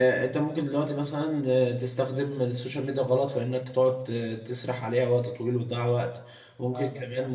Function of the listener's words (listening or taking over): listening